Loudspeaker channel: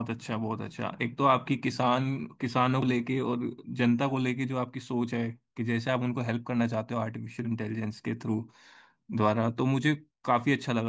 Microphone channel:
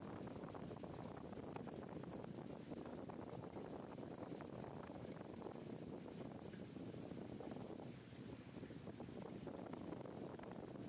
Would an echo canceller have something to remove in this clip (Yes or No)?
No